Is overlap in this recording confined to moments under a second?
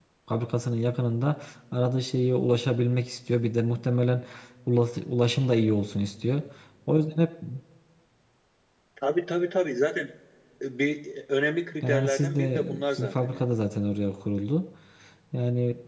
No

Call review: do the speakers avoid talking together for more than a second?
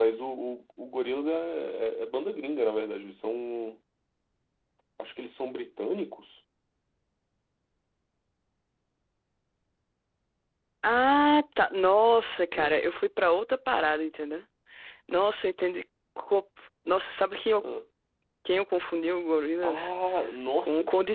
Yes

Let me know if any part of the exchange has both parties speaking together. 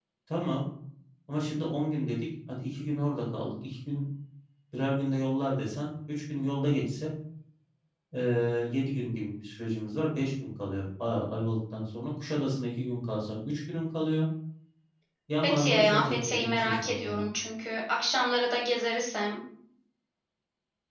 Yes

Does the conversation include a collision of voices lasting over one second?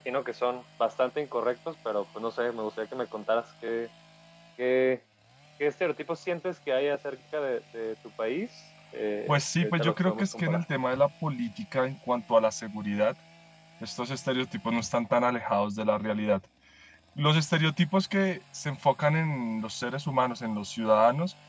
Yes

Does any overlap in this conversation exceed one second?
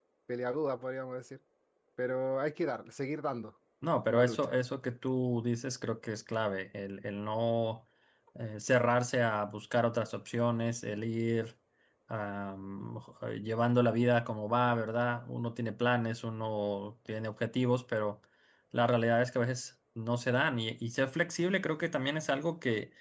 No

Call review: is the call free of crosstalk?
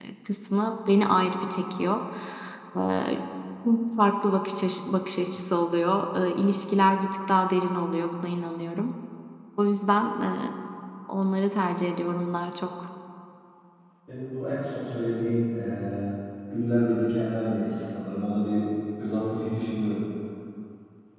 Yes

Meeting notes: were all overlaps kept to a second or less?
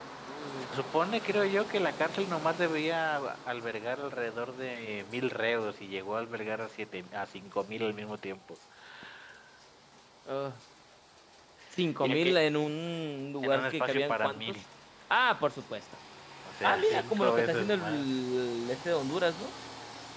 No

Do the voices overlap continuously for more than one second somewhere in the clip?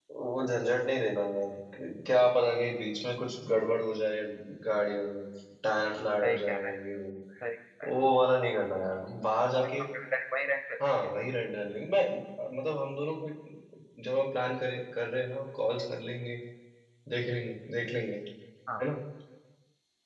No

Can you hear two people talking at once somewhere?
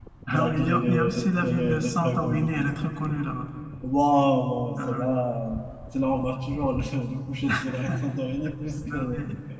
Yes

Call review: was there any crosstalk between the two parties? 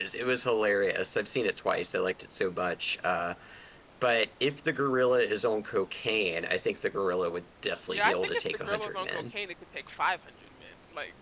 Yes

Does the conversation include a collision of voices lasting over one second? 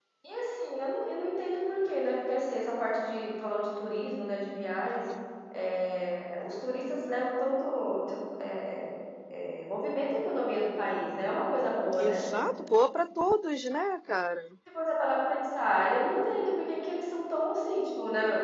No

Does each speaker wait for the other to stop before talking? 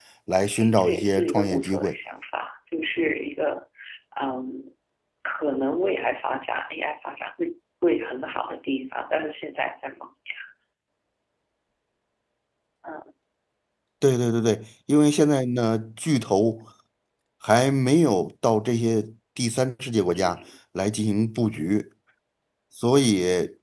No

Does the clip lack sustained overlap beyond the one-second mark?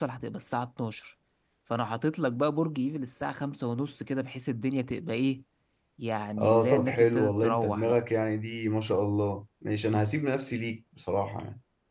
No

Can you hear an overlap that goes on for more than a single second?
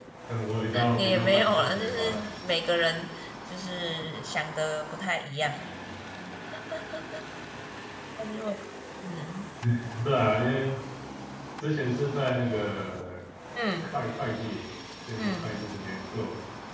Yes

